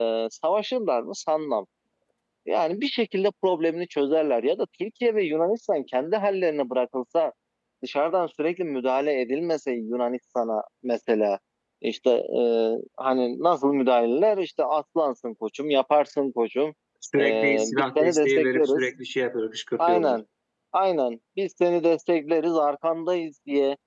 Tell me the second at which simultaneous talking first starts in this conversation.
17.2 s

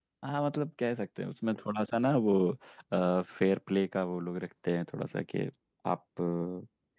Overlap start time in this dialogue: none

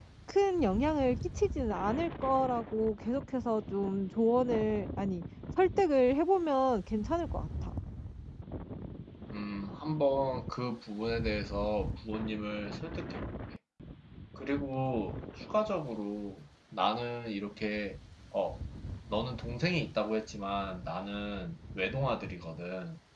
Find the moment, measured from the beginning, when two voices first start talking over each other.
none

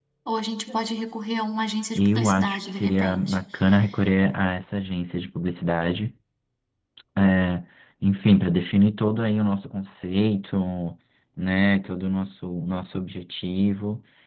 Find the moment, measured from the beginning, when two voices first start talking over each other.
1.9 s

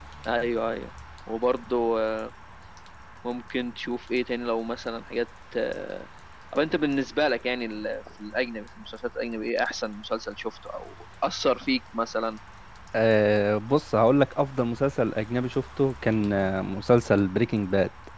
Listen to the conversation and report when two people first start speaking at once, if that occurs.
none

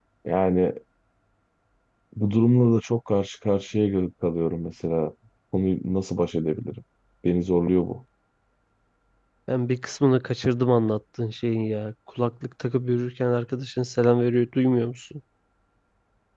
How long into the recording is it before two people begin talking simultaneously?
none

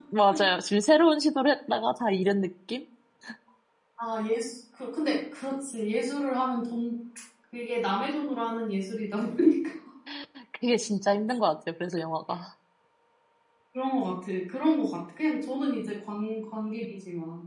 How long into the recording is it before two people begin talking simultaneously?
none

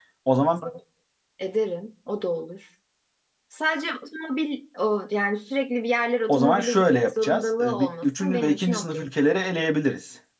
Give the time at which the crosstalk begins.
6.3 s

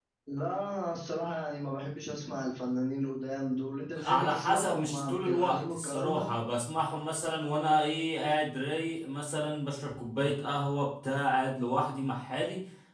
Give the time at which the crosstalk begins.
4.0 s

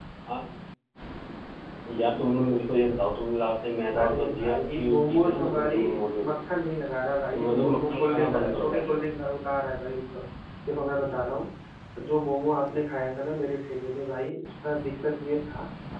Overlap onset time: 4.0 s

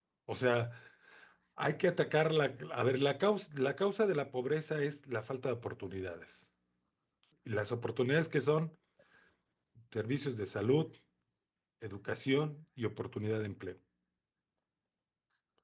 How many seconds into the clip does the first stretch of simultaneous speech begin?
none

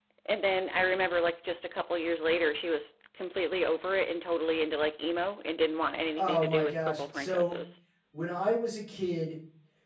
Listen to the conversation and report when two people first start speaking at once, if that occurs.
6.2 s

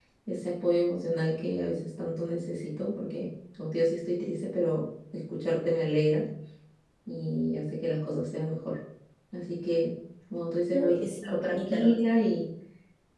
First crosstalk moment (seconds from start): 10.7 s

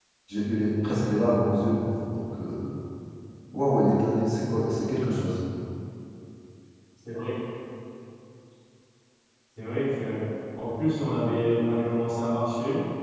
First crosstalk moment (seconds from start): none

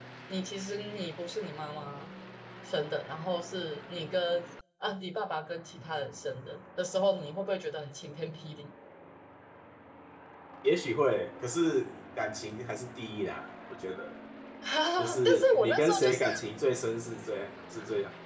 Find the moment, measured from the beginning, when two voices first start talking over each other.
15.0 s

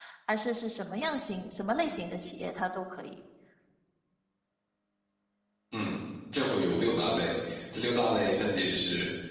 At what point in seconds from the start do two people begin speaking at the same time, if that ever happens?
none

